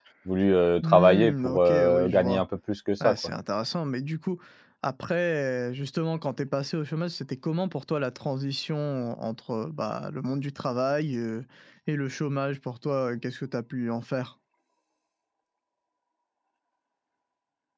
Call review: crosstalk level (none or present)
present